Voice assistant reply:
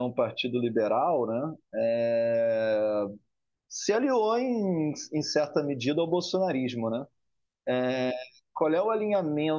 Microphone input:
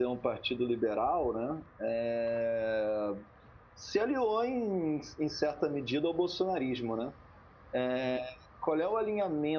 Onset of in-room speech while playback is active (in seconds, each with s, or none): none